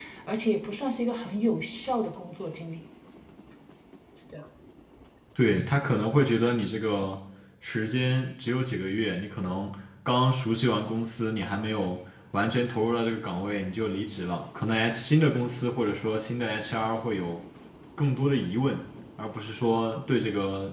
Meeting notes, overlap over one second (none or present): none